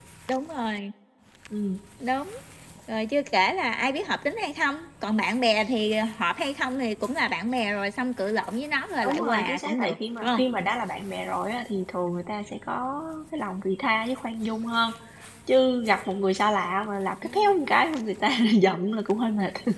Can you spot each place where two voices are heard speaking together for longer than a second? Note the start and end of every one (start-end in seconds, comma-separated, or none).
9.0-10.4